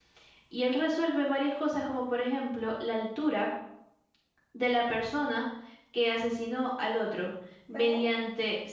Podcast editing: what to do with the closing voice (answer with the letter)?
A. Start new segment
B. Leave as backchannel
B